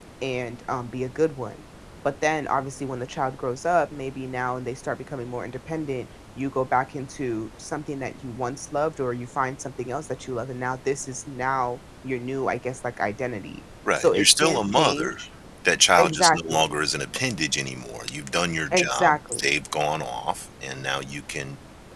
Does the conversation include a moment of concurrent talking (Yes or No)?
Yes